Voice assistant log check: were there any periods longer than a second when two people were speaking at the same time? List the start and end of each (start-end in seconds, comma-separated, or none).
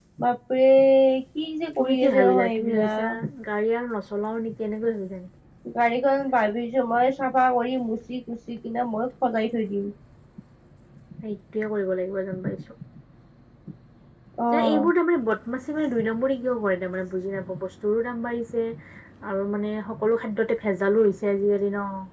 1.8-3.0